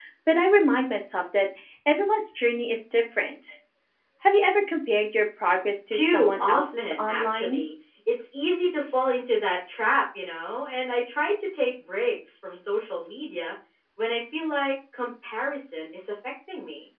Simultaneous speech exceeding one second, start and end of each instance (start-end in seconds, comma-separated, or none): 5.9-7.6